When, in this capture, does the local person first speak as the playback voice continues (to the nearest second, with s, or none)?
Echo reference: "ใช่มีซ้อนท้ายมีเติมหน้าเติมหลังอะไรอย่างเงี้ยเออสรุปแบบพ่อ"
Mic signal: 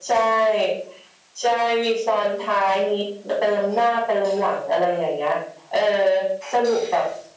none